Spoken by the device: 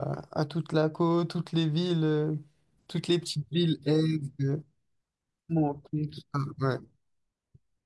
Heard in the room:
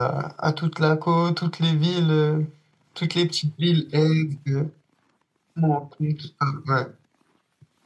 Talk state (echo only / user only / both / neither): echo only